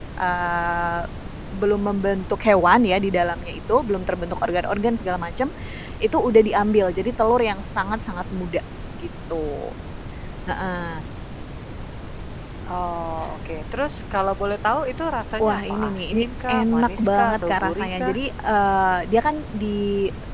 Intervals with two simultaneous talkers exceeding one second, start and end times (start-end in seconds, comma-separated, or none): 15.4-18.2